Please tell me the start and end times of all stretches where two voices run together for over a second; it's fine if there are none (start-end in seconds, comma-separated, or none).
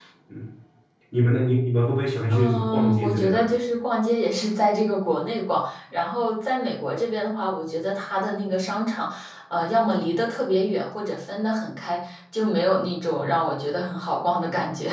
2.3-3.5